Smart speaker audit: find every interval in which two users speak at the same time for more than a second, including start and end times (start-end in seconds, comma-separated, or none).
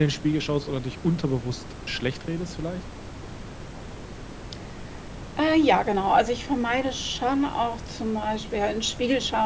none